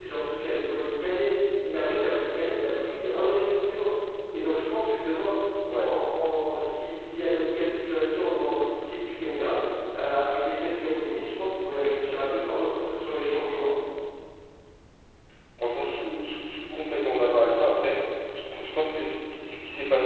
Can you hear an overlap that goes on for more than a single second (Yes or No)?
No